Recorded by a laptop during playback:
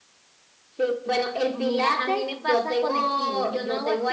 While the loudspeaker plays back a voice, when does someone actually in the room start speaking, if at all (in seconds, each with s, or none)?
1.5 s